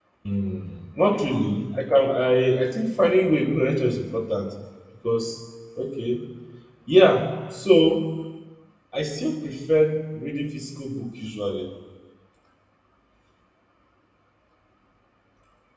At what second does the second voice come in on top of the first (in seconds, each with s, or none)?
none